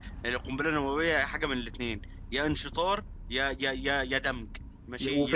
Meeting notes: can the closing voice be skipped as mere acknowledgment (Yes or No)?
No